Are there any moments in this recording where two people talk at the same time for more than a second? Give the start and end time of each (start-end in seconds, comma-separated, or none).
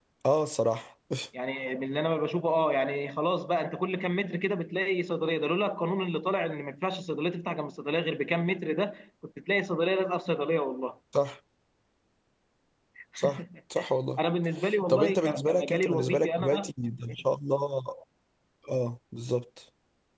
14.9-16.7